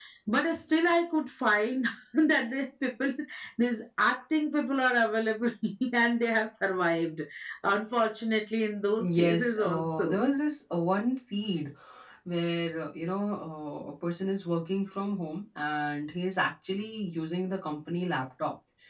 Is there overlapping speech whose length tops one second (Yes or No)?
Yes